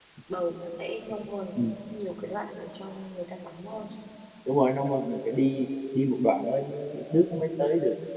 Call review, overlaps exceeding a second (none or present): none